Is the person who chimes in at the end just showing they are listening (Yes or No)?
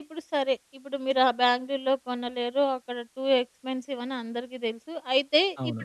Yes